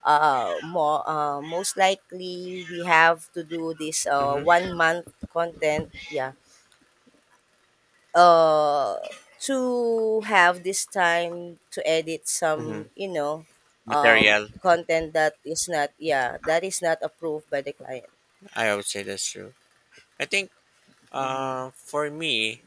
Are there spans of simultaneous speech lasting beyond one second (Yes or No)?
No